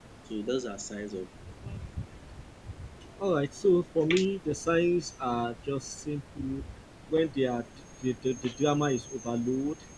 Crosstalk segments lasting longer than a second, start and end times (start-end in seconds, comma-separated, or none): none